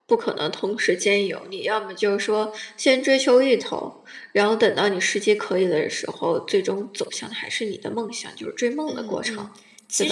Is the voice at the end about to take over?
Yes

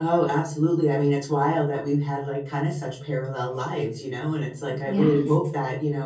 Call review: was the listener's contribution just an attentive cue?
Yes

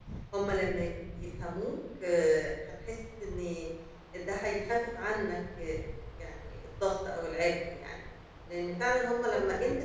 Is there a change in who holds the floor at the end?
No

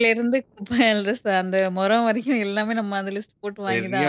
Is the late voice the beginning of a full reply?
Yes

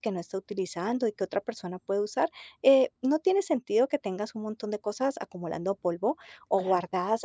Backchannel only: Yes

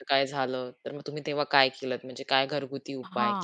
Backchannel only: No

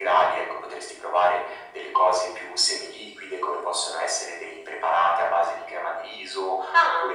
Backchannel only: Yes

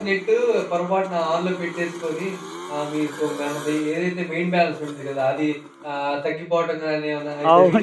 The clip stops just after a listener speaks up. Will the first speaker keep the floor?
No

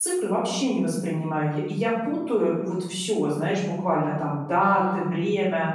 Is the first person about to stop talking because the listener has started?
No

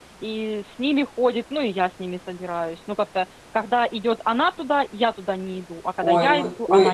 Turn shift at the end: Yes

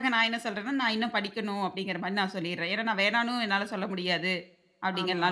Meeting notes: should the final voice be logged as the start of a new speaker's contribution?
No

